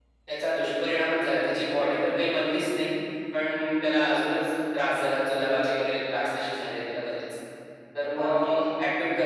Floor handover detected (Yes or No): No